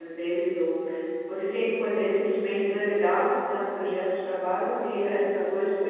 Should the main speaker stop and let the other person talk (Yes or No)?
No